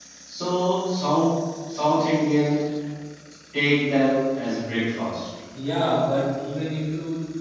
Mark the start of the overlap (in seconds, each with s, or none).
none